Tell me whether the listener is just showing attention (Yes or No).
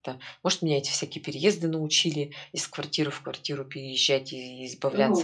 No